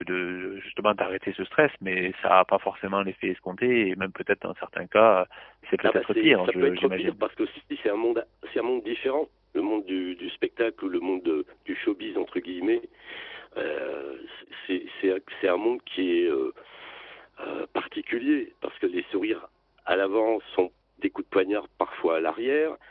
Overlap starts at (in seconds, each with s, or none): 5.8 s